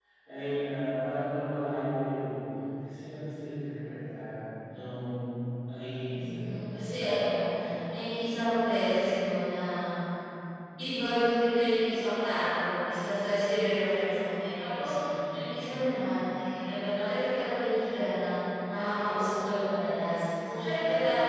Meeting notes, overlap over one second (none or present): none